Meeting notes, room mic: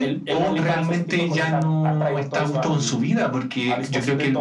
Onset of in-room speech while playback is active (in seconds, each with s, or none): none